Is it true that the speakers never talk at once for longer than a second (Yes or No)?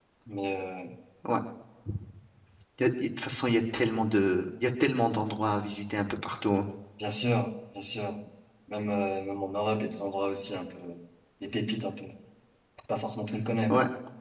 Yes